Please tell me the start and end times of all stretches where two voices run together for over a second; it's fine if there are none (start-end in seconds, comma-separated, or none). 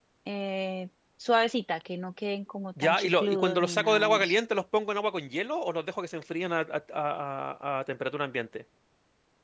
2.8-4.3